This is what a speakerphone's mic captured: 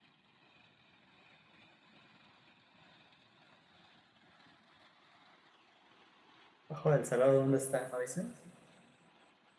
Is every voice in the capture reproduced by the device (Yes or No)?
No